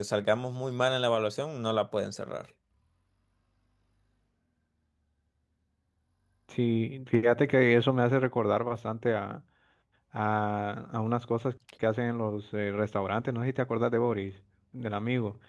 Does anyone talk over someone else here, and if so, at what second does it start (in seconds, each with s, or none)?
none